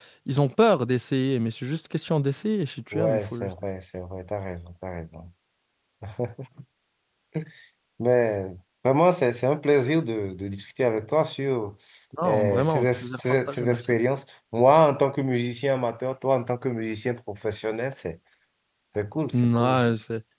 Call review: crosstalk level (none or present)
present